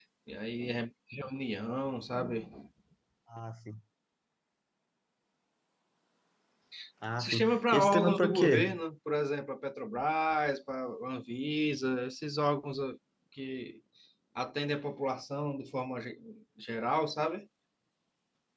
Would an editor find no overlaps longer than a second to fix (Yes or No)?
No